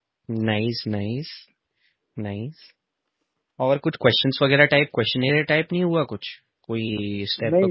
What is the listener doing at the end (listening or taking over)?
taking over